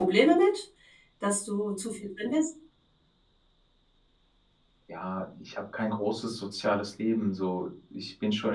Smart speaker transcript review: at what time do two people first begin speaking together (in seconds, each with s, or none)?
none